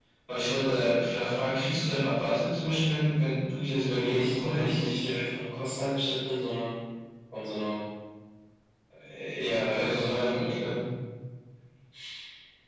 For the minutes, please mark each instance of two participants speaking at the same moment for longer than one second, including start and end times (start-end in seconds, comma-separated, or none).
3.7-4.9, 9.4-10.8